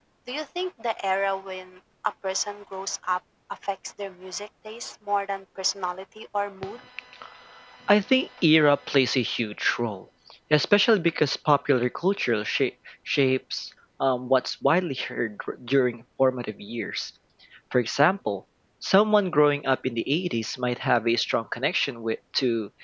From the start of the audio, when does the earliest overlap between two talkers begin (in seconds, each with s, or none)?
none